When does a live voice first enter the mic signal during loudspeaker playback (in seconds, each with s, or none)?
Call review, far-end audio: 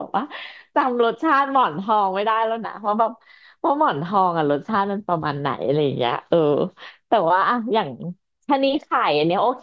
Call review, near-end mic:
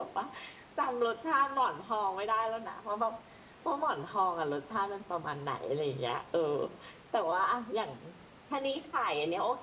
none